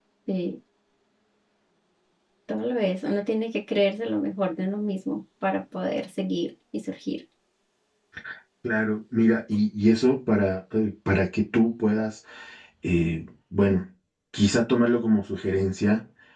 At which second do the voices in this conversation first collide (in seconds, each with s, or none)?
none